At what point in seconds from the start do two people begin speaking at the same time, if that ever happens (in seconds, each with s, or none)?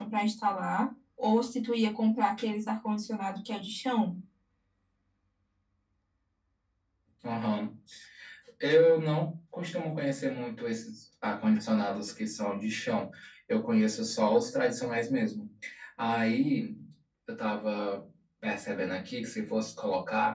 none